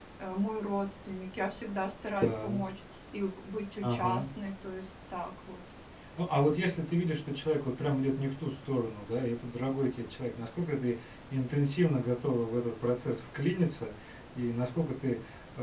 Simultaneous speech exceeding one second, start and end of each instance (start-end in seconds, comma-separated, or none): none